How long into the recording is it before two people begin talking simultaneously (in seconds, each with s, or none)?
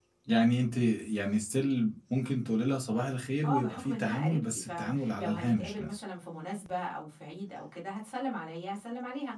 3.4 s